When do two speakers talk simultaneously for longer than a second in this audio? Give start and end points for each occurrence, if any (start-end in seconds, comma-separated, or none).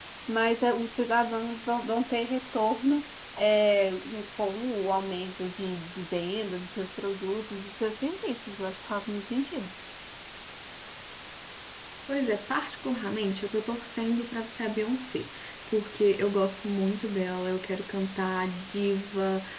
none